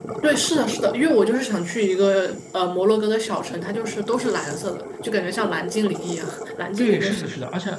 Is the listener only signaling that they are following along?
No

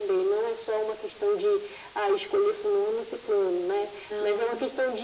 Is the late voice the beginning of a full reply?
No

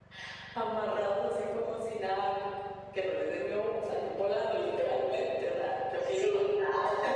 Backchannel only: No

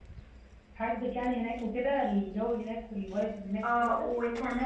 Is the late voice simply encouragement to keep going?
No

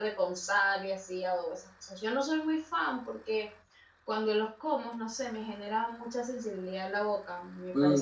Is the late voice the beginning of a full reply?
Yes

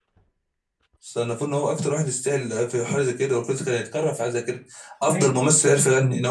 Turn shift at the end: No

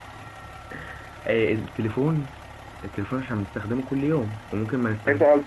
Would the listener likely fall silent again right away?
No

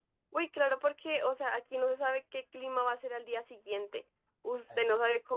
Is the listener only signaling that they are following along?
Yes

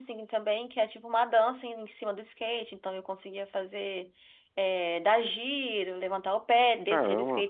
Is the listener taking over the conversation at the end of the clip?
No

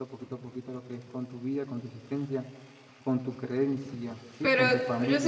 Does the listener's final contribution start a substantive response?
Yes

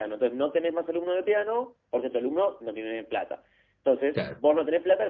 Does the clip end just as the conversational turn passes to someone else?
No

